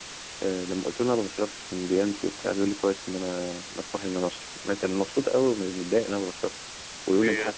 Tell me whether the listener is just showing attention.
Yes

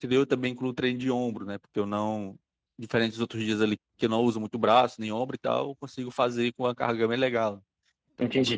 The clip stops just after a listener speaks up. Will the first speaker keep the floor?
No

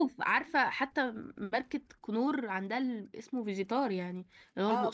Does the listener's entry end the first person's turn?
Yes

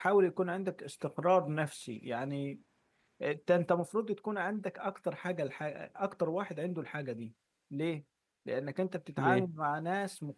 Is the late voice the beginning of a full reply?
No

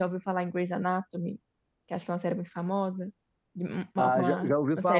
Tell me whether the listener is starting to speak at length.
Yes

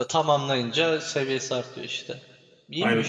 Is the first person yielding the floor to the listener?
Yes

